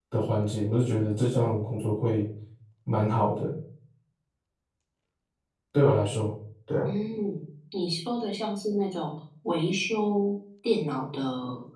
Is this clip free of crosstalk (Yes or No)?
Yes